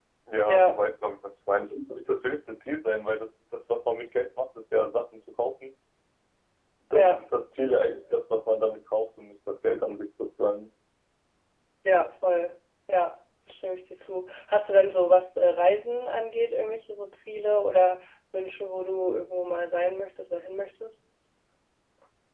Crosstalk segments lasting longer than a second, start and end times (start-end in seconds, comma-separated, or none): none